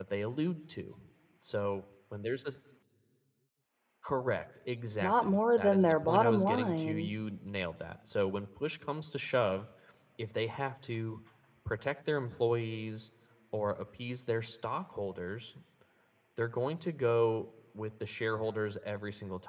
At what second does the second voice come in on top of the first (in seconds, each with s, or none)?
5.0 s